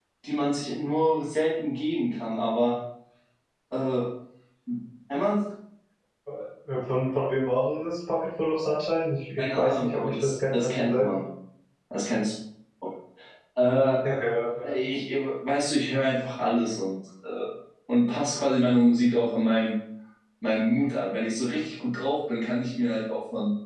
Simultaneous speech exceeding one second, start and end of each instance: 9.4-11.1

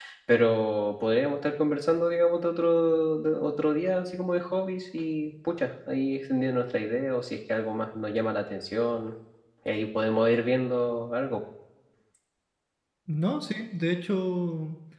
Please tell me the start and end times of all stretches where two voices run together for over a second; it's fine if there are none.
none

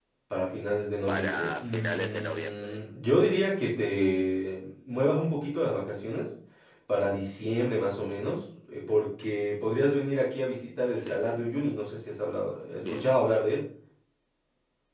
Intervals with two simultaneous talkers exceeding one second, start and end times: 1.1-2.8

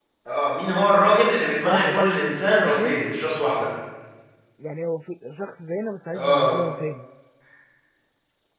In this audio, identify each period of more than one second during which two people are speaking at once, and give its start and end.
1.6-3.0

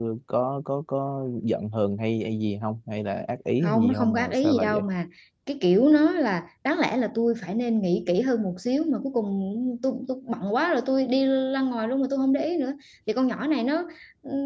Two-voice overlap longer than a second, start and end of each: 3.6-4.9

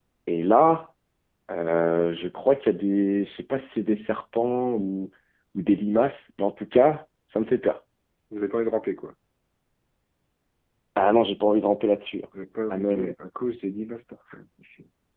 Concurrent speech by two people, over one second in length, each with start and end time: none

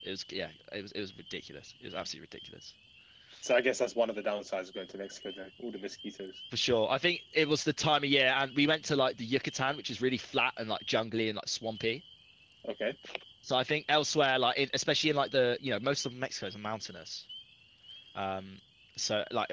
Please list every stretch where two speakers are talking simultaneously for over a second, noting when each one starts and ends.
none

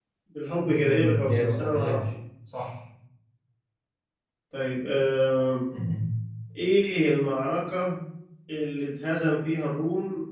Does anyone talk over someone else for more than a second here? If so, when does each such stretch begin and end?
0.6-2.0

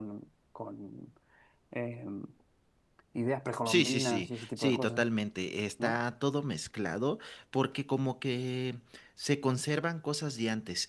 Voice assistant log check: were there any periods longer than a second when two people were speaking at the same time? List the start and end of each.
3.7-5.0

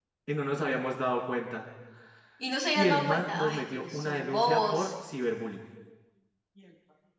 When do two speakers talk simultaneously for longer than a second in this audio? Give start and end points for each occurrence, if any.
2.8-4.9

